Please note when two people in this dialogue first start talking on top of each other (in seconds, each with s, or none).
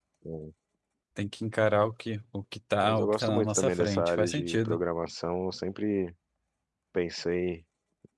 2.8 s